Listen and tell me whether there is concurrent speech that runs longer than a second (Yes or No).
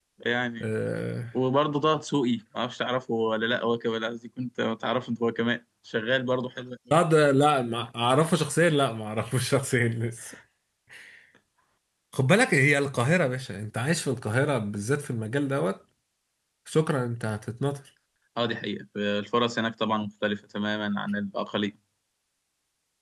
No